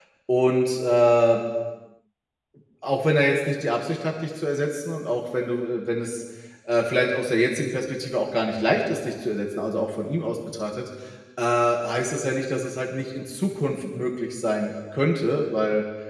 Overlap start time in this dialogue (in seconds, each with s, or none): none